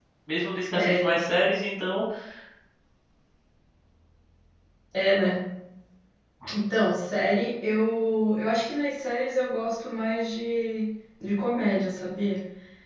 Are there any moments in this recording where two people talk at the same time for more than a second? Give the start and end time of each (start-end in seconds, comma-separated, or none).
none